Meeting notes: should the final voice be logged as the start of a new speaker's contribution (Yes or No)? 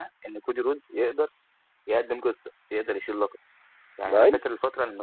No